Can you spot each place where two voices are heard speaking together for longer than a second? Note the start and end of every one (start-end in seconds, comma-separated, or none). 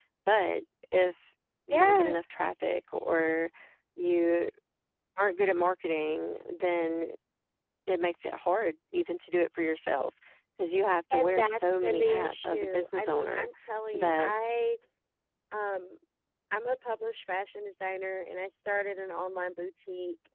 11.1-13.5